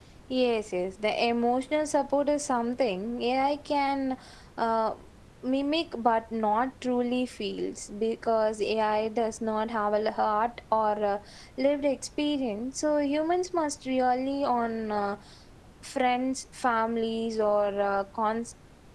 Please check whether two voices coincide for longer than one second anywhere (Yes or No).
No